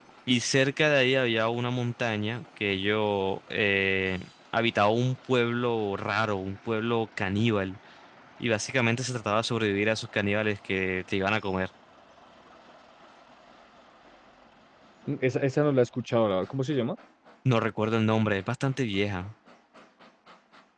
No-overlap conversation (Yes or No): Yes